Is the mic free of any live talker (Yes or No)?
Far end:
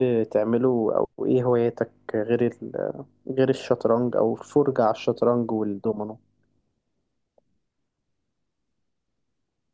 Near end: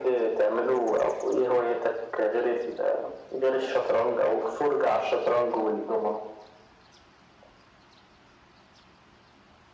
Yes